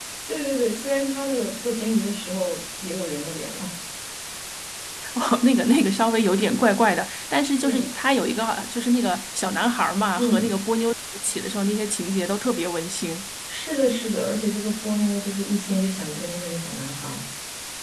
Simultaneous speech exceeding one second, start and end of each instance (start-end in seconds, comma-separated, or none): none